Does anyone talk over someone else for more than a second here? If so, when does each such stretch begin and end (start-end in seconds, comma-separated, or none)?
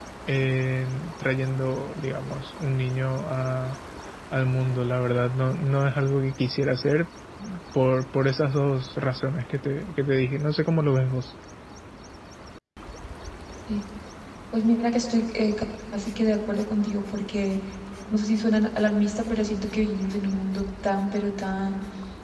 none